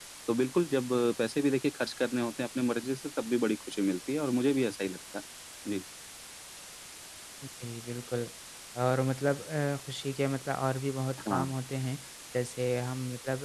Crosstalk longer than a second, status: none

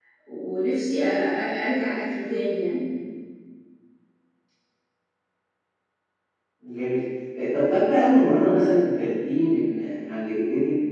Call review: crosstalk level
none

